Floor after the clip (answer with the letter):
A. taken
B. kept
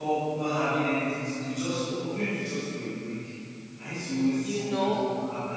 B